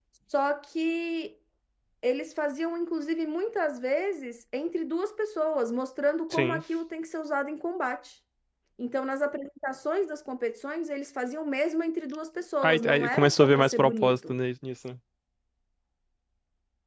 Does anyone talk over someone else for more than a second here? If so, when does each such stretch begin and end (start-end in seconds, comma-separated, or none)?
12.6-14.4